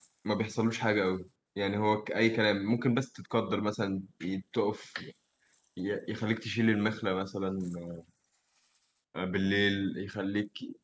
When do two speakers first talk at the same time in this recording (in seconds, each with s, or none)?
none